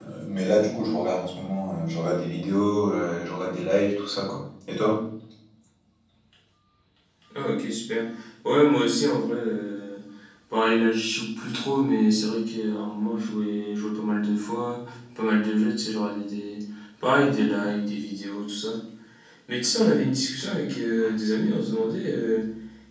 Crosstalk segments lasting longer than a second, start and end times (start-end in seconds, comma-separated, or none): none